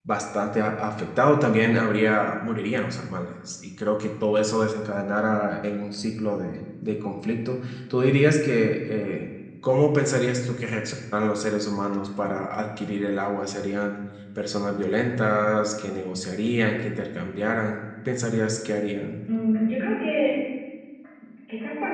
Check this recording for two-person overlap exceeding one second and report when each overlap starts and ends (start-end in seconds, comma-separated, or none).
none